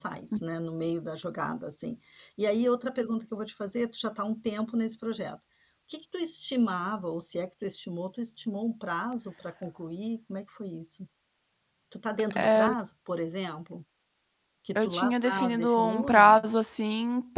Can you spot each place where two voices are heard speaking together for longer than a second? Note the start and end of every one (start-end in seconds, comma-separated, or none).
14.8-16.4